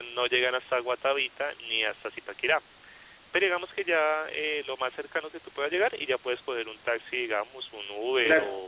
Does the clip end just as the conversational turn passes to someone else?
Yes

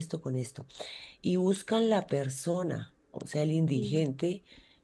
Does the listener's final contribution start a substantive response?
No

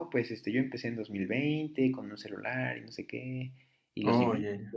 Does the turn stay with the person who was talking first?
Yes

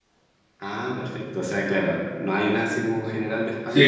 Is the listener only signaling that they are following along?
No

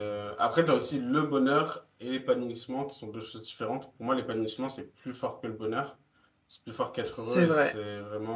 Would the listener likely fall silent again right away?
Yes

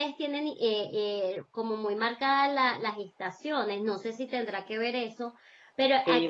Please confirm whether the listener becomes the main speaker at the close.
Yes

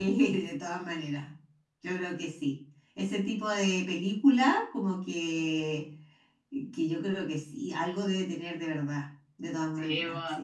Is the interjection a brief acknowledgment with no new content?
No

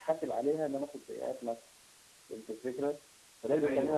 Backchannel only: Yes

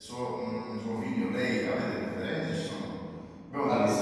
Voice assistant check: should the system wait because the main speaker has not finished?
Yes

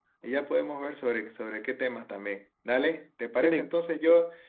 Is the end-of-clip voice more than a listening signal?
No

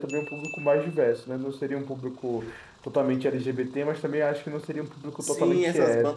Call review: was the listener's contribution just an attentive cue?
No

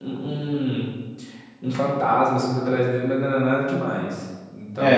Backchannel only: No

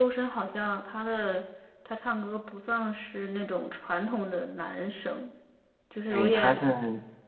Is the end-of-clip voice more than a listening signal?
Yes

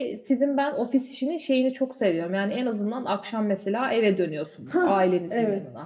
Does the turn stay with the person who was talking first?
No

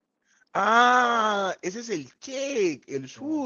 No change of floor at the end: Yes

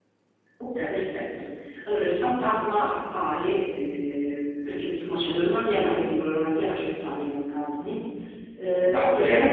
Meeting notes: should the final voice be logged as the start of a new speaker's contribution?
Yes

